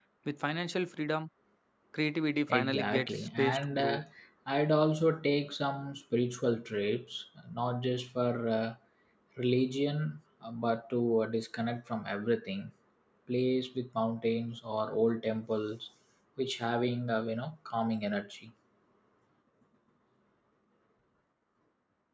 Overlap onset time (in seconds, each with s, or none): 2.5 s